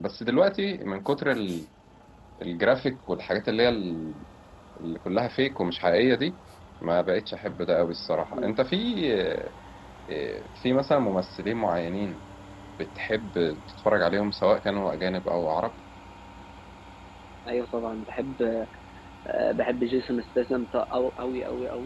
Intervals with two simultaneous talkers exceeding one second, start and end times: none

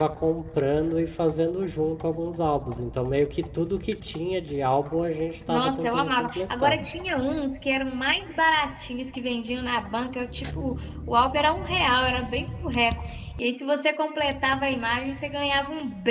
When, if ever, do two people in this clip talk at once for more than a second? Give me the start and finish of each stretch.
5.5-6.8

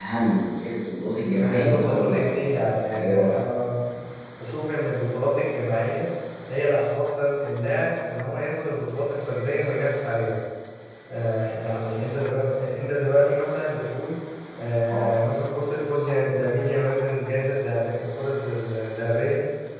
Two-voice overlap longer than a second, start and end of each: 1.4-3.4

